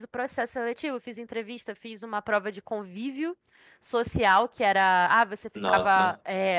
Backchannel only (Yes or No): Yes